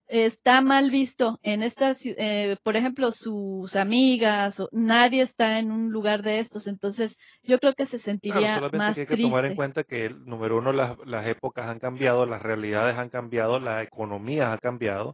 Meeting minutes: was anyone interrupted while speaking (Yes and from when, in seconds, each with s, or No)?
Yes, from 8.3 s